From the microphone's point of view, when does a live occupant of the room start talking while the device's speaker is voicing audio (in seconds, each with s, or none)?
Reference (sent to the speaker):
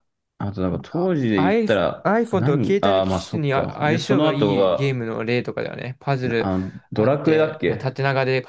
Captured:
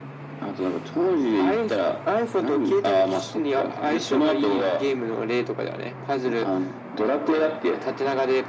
none